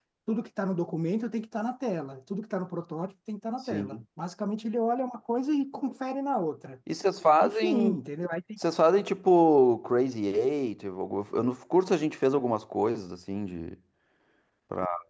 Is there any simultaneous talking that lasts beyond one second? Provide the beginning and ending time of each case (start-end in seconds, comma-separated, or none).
none